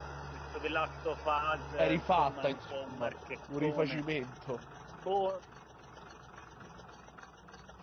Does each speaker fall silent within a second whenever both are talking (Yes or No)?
No